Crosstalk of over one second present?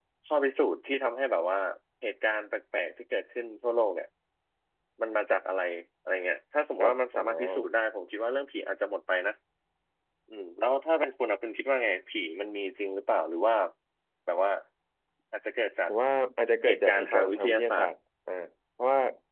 Yes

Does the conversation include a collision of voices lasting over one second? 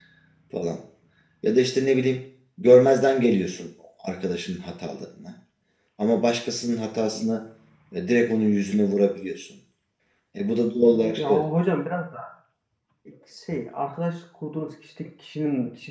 No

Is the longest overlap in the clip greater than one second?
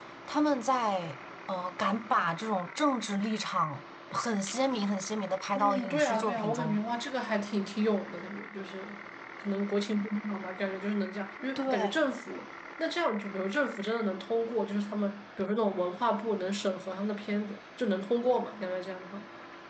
Yes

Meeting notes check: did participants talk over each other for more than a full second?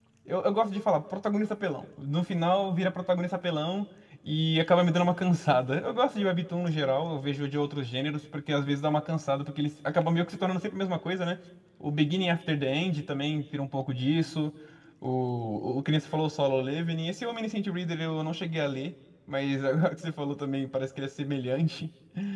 No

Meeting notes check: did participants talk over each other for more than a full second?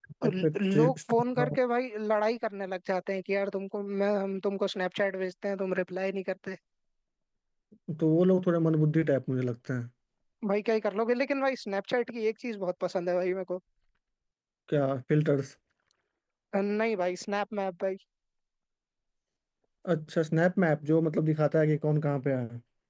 Yes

